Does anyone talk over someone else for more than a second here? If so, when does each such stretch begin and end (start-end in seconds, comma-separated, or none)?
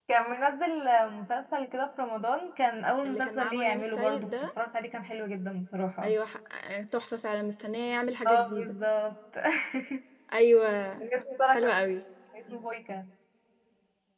3.0-4.3